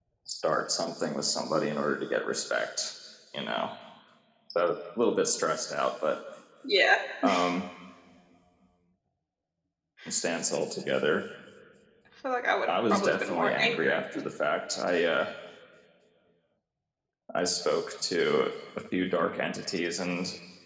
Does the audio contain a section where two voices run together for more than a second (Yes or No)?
Yes